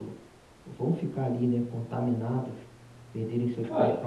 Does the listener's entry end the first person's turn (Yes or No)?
No